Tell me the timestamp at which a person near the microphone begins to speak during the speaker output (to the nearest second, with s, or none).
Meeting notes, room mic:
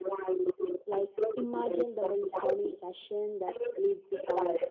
1 s